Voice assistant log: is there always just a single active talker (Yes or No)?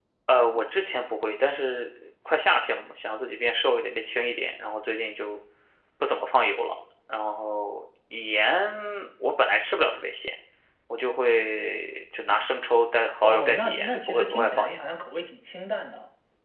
No